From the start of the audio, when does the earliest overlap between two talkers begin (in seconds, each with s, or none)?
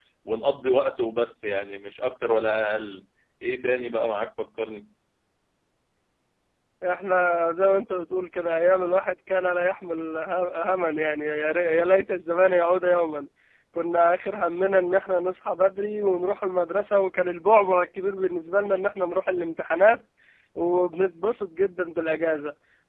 none